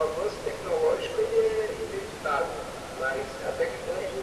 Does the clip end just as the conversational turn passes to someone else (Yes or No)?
No